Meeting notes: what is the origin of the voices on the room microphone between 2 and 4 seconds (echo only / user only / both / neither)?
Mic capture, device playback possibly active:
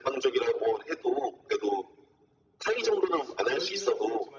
both